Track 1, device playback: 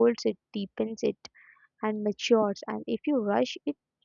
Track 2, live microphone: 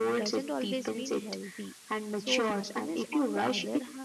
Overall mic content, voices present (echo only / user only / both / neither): both